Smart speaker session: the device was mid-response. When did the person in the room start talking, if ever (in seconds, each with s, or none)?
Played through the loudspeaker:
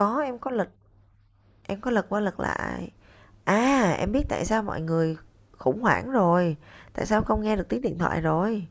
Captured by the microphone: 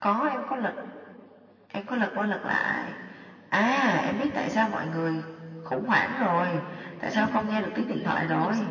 7.1 s